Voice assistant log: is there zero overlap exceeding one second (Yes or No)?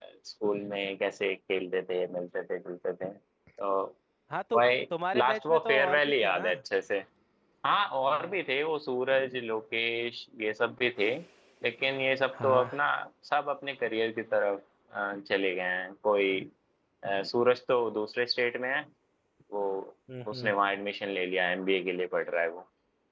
No